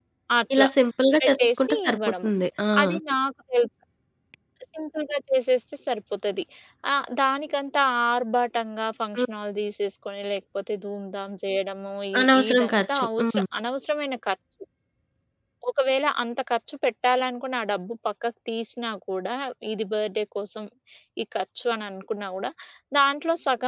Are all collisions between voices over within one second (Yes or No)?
No